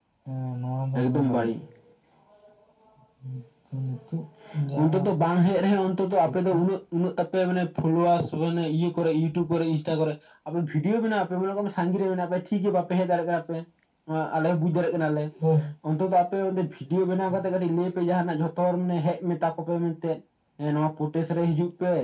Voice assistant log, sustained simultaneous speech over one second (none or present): none